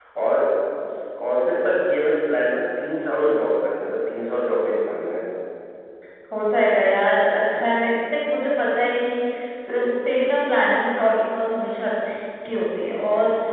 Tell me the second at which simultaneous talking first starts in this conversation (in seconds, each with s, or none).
none